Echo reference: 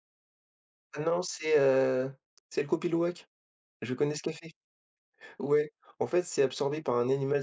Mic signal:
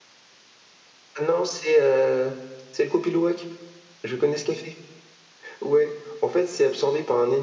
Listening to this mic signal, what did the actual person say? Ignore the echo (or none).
none